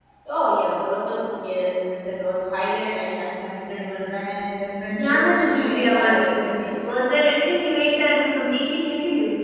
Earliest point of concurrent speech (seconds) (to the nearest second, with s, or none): 5 s